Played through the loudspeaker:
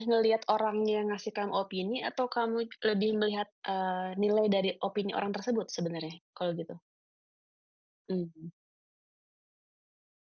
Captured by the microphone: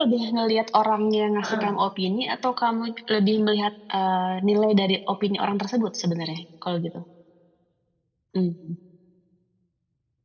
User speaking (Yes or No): Yes